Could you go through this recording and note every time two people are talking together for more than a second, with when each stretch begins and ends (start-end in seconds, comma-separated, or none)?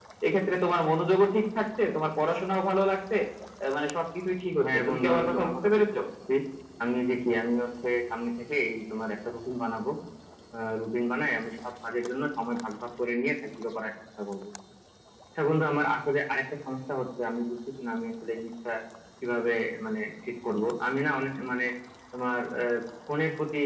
4.6-6.0